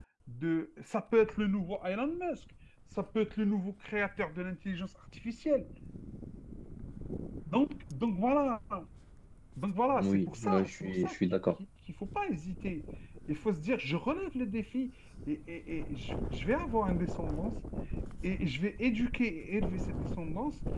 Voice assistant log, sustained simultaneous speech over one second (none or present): present